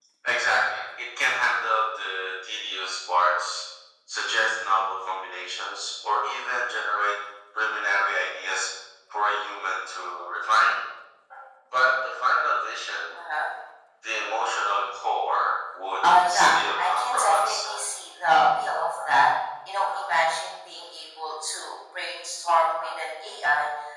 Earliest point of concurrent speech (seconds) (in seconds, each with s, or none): 16.0 s